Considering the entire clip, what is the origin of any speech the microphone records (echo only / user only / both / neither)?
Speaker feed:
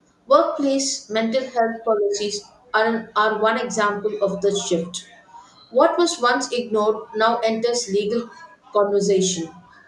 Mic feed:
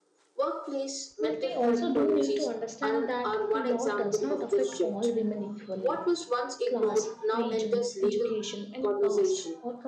both